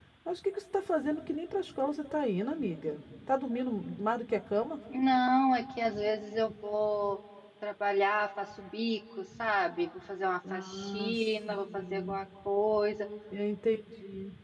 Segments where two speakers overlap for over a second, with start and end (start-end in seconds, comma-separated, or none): 10.5-12.2